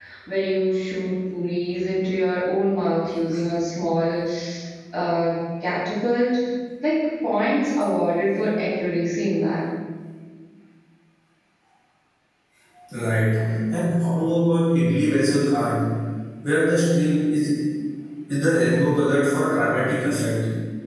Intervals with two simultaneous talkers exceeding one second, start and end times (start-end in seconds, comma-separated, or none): none